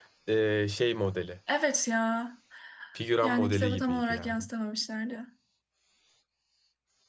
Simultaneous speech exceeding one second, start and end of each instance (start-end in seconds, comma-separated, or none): 3.2-4.5